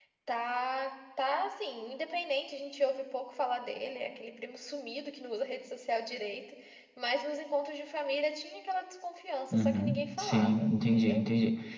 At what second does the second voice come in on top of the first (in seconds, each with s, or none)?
9.5 s